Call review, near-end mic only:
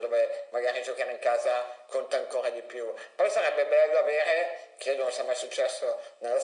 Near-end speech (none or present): none